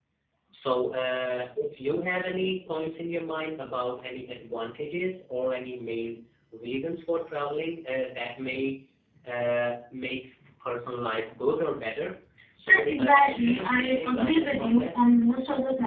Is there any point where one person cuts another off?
Yes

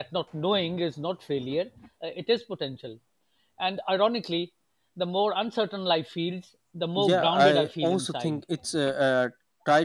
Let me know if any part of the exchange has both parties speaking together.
Yes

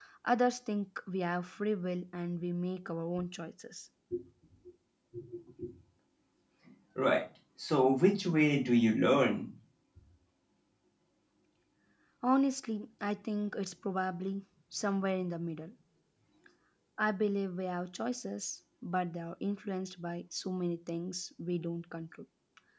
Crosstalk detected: No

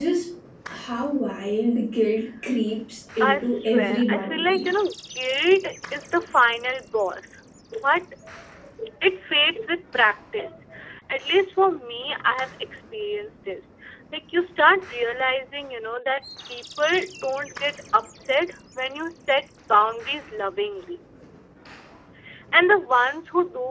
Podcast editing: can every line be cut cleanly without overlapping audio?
No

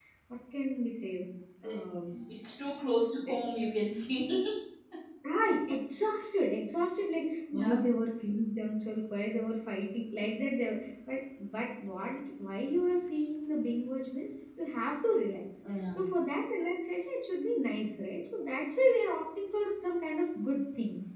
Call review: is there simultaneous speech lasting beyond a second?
No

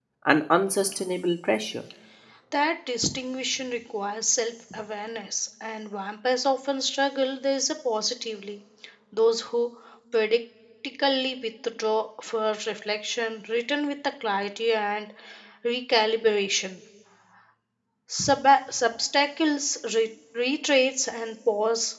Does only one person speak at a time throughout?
Yes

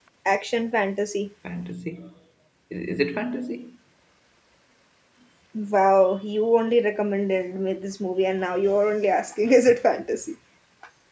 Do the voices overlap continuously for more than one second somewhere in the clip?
No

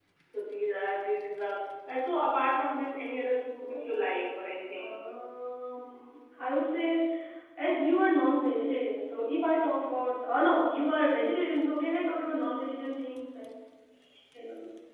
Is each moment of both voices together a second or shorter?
Yes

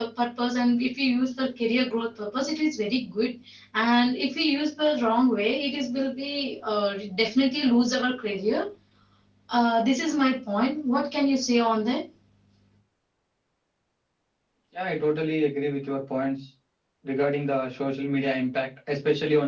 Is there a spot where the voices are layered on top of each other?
No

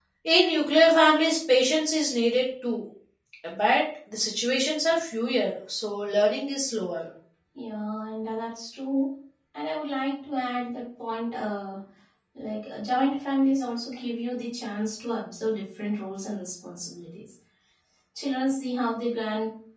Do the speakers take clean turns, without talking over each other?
Yes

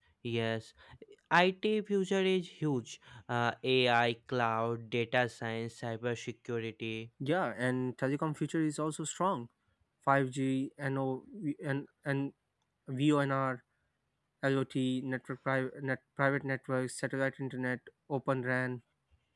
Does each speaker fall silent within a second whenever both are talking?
Yes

